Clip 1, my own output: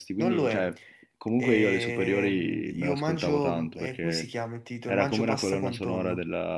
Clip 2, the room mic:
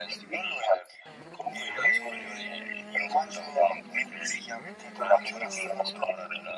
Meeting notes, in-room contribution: none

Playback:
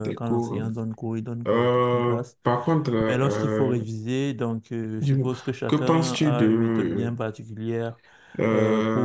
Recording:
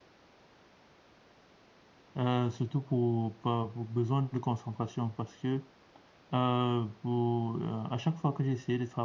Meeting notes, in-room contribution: present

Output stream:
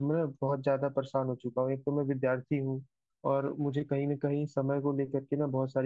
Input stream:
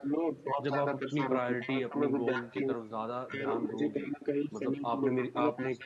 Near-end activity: present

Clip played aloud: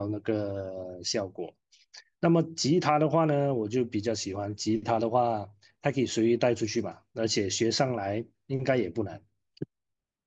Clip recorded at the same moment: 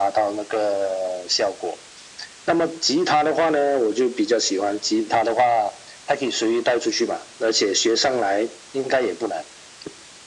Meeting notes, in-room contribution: none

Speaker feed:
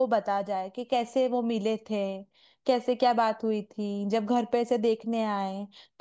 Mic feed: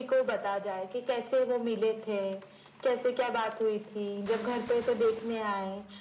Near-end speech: none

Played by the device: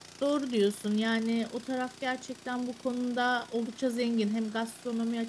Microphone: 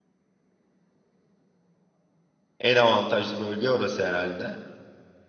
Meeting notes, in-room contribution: present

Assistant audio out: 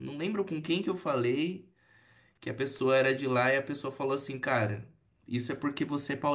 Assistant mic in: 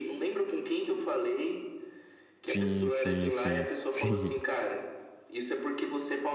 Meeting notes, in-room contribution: present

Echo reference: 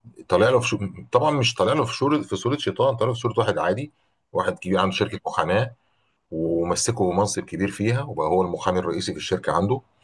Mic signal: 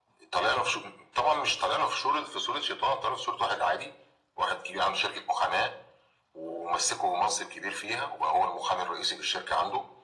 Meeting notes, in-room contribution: none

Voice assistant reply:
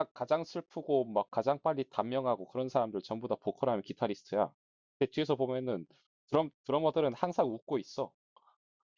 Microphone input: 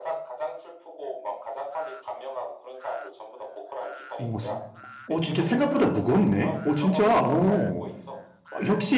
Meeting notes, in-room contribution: present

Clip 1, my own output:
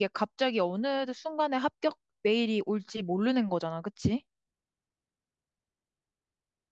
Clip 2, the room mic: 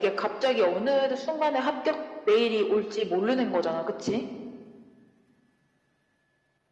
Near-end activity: none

